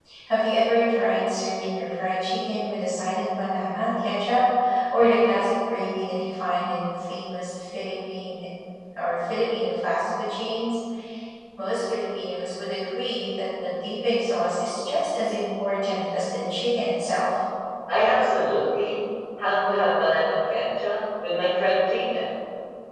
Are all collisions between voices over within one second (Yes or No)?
Yes